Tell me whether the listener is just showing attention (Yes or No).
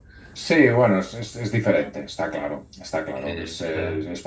Yes